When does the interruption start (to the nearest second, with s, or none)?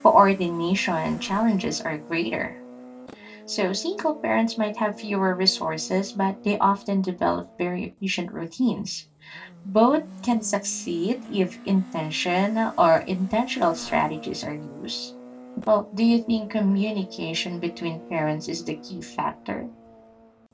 none